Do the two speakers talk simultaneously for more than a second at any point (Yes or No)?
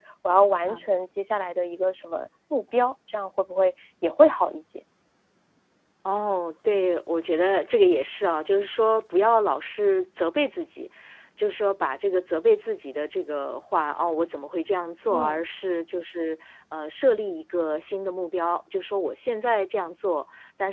No